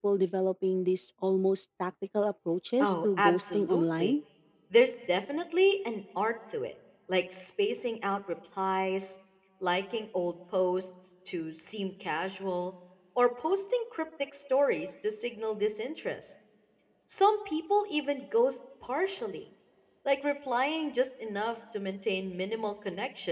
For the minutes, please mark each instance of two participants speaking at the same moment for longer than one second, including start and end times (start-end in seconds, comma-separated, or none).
2.8-4.1